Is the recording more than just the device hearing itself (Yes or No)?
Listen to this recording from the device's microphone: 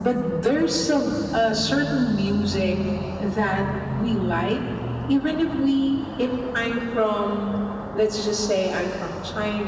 No